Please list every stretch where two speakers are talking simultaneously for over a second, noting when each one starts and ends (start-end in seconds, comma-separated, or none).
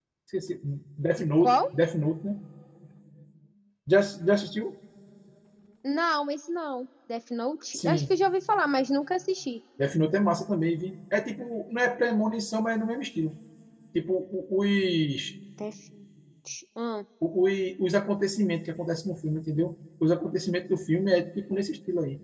none